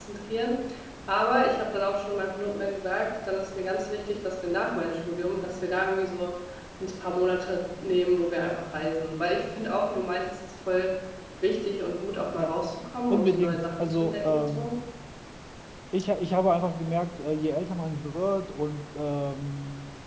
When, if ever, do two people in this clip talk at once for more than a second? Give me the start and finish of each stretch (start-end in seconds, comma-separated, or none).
13.1-14.7